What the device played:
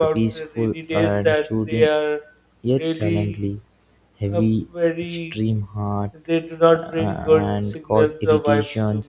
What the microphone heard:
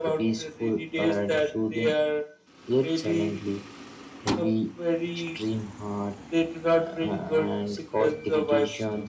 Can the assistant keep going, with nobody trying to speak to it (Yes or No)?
Yes